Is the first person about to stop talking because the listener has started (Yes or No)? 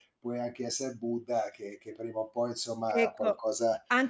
Yes